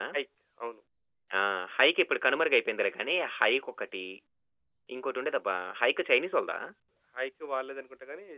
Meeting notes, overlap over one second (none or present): none